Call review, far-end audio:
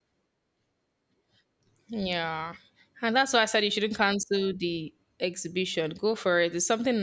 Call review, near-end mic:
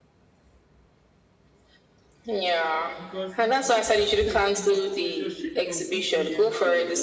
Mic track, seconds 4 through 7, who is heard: both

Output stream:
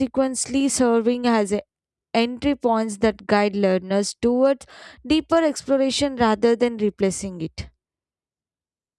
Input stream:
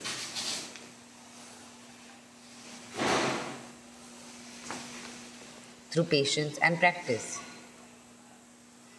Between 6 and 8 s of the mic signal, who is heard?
user only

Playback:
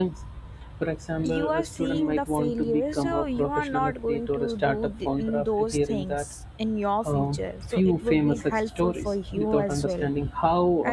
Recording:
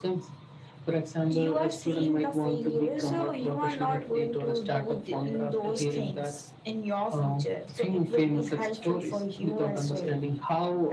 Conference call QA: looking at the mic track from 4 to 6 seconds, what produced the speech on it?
both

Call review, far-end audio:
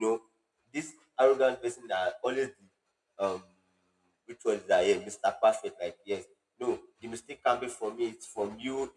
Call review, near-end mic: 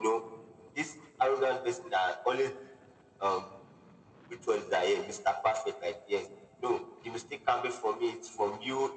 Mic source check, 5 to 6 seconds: echo only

